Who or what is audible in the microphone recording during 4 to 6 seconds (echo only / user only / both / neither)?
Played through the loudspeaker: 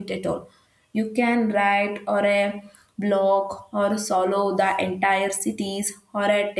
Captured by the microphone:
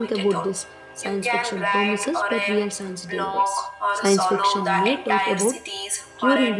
both